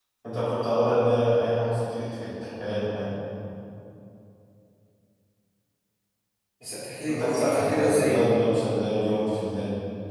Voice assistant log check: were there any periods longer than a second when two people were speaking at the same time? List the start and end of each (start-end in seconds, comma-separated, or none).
7.1-8.3